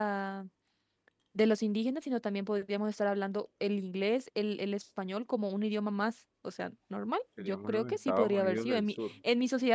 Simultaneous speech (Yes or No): Yes